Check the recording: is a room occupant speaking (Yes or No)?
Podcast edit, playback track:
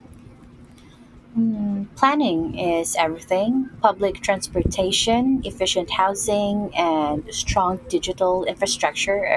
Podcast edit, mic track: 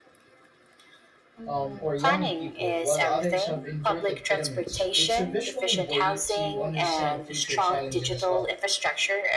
Yes